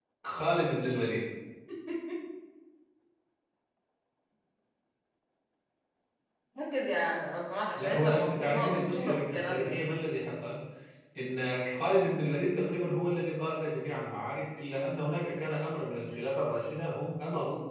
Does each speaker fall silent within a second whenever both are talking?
No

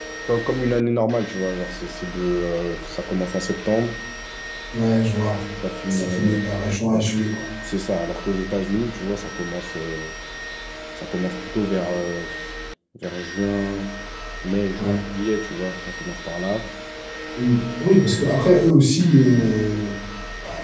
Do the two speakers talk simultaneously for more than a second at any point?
No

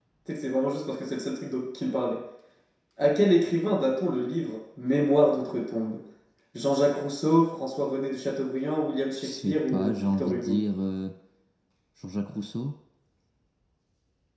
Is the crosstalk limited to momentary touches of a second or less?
No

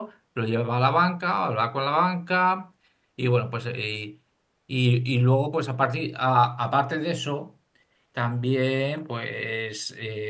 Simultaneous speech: No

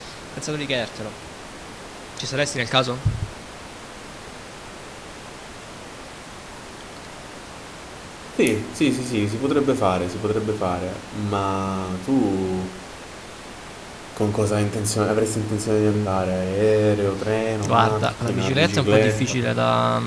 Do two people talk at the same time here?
Yes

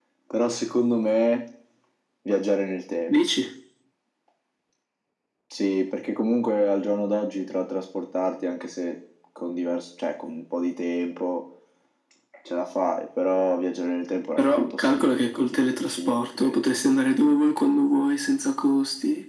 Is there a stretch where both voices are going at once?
Yes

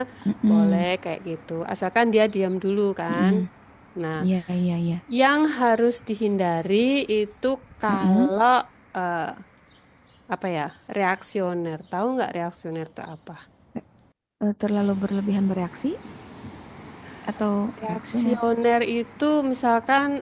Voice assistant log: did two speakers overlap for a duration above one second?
No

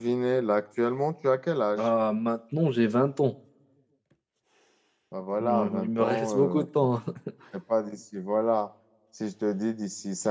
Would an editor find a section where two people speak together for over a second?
Yes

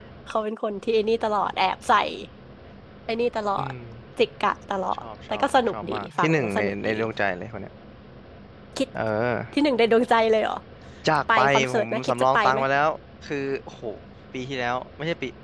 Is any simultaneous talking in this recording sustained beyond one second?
Yes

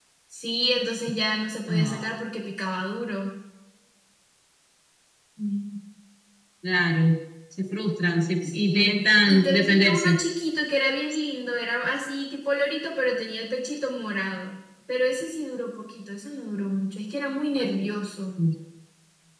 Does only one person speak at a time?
No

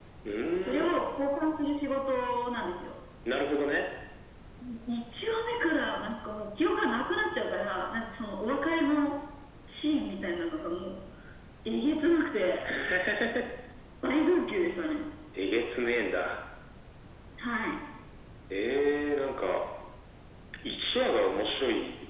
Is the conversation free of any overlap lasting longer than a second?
Yes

